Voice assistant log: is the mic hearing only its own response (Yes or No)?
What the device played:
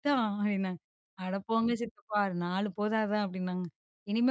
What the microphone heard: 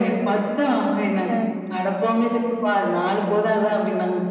No